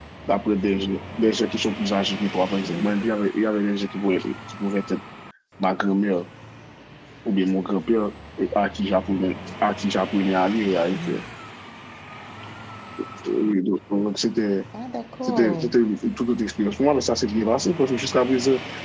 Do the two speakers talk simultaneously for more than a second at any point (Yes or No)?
No